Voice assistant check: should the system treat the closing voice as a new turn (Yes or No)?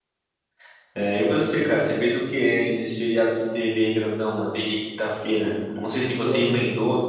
No